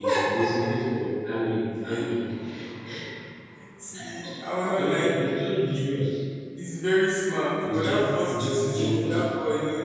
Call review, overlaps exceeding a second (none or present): present